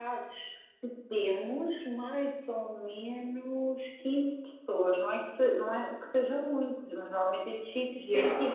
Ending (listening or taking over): listening